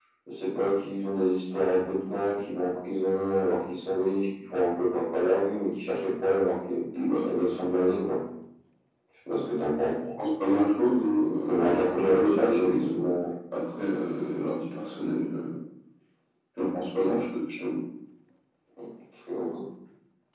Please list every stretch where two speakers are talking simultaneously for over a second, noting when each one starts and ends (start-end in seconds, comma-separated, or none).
11.4-12.8